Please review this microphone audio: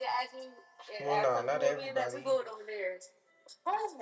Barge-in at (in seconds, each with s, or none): 1.0 s